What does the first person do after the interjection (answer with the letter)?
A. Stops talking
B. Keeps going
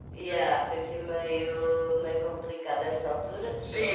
A